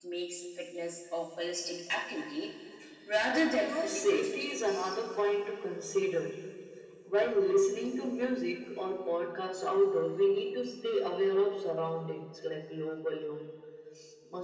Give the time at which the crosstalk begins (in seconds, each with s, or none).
3.3 s